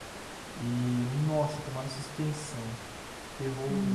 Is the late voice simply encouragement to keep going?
No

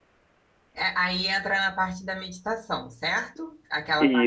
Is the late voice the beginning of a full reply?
No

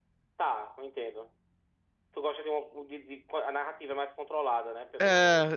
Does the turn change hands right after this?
Yes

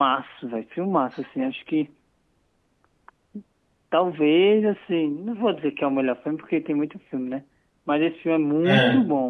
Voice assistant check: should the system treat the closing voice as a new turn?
No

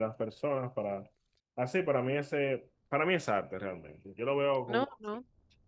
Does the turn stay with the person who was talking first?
No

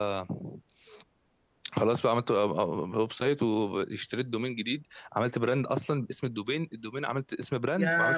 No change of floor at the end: No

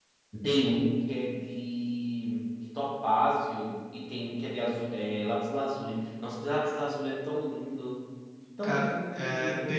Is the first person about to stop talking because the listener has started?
Yes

